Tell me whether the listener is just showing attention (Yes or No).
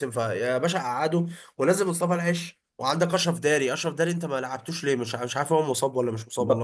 No